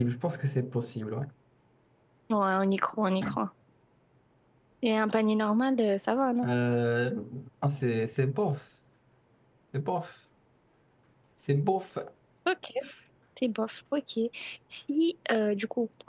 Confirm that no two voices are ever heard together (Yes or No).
Yes